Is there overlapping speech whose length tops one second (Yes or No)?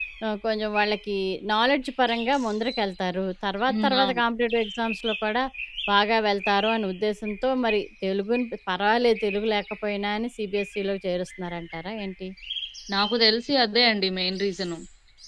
No